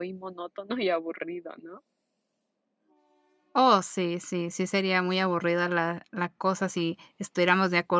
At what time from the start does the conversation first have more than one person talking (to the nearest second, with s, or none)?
none